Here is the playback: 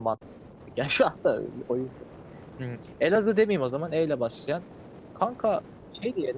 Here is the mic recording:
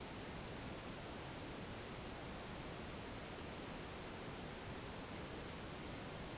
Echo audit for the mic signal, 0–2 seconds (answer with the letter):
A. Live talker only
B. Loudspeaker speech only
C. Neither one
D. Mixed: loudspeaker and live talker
C